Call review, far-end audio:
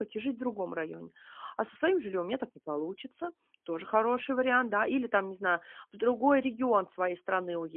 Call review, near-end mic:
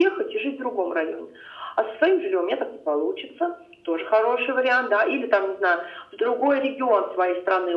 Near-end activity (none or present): none